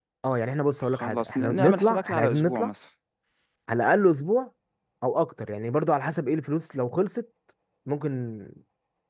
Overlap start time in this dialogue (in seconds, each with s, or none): 0.8 s